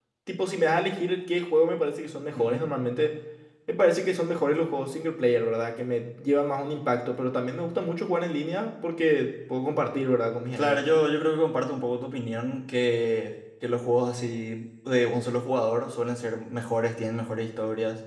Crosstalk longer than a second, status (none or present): none